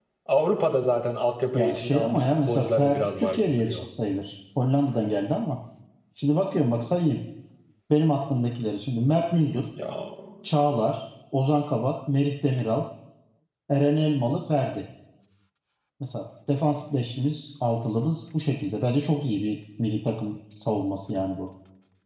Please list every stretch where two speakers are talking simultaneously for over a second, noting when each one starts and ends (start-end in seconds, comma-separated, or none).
1.5-3.8